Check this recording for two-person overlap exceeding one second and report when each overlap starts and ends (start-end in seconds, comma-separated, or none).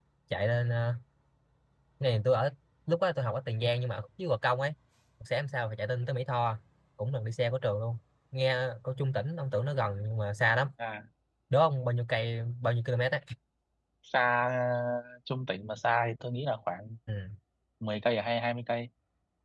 none